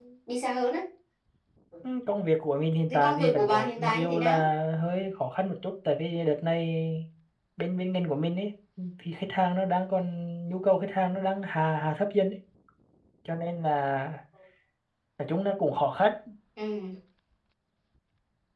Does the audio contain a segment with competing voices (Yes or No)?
Yes